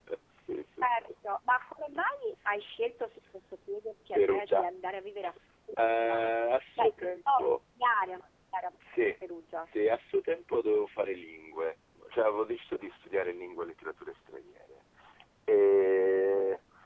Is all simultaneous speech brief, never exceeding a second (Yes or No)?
No